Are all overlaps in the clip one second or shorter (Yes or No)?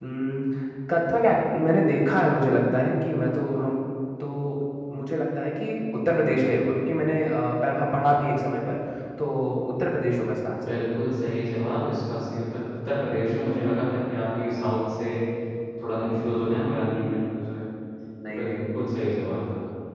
Yes